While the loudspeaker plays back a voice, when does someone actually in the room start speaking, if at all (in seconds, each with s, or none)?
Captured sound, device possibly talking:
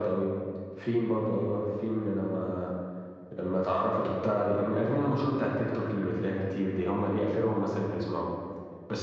none